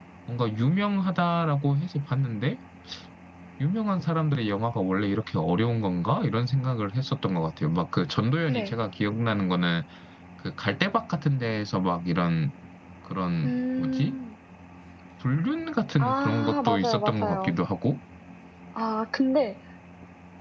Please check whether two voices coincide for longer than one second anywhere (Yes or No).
Yes